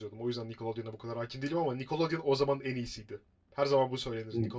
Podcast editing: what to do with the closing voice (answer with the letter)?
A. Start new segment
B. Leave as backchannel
A